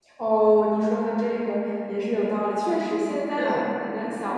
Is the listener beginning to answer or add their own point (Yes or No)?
No